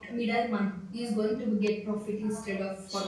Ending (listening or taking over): taking over